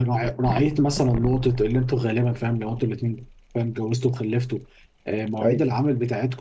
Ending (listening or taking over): listening